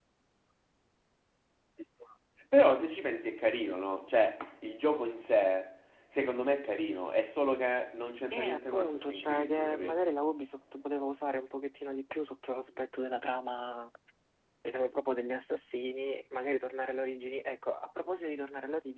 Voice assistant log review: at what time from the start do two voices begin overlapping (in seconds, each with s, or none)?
8.3 s